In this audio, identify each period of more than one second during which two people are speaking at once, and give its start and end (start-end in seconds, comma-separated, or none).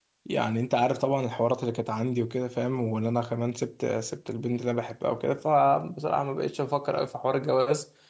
none